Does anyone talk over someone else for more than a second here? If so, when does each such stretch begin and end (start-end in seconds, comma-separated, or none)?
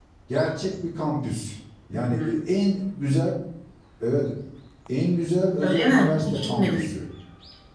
5.6-7.0